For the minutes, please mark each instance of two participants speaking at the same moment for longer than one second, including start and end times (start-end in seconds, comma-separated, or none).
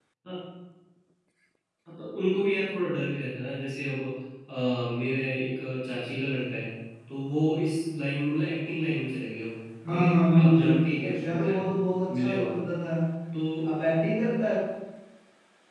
9.9-11.6